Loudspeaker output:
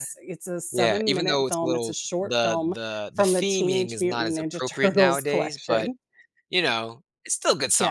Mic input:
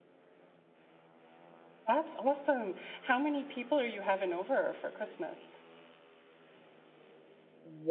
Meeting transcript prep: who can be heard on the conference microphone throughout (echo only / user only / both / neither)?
user only